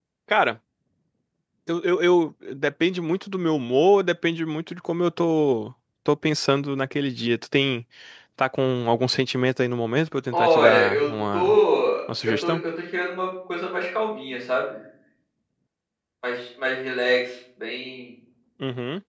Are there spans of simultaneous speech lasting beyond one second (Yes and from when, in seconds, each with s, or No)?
Yes, from 10.3 s